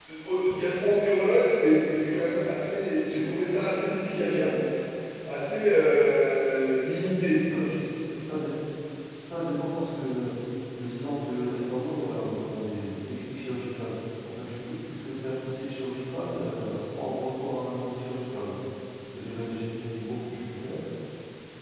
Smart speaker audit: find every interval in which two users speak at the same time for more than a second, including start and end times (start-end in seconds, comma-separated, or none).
none